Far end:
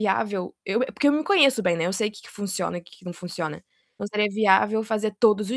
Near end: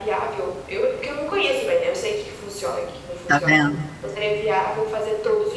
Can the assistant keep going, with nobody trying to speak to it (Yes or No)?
No